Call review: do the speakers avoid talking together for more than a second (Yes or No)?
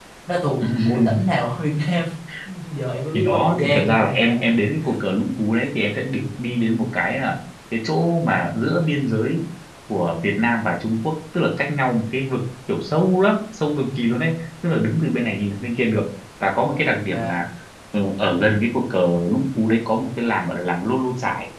No